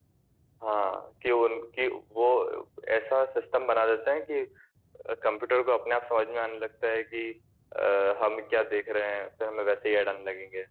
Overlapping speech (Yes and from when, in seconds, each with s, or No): No